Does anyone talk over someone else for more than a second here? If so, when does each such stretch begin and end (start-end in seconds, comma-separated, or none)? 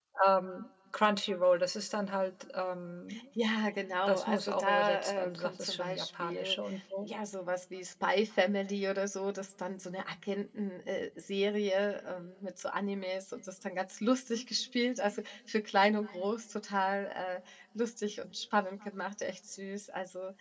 4.0-6.6